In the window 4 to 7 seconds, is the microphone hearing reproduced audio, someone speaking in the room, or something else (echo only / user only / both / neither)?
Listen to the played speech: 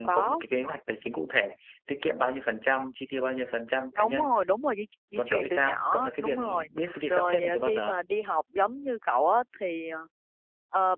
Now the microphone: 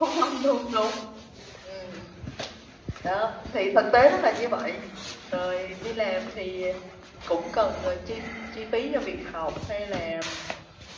user only